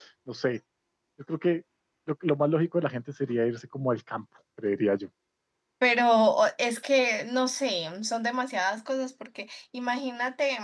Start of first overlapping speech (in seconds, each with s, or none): none